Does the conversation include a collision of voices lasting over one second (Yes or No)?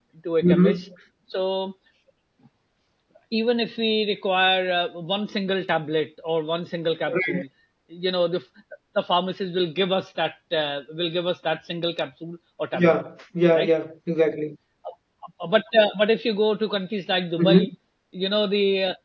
No